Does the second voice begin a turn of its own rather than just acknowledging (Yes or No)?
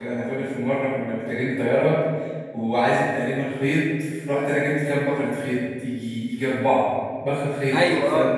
No